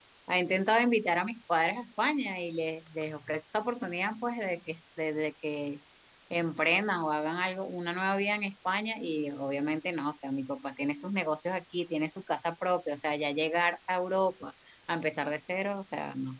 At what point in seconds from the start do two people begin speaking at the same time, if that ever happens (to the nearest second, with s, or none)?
none